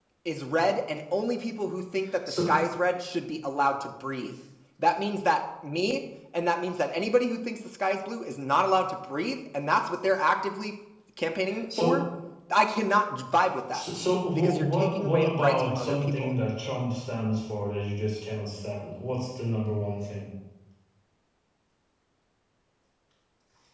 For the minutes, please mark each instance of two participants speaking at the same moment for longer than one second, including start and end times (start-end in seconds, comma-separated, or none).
14.4-16.3